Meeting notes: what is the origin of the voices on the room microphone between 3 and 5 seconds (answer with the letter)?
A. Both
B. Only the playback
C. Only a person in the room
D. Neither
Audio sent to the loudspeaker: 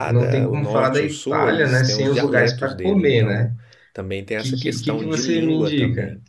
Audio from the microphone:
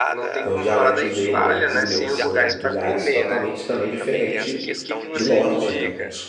A